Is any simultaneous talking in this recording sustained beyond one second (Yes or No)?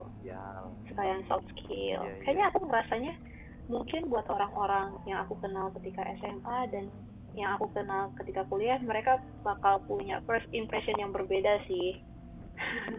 Yes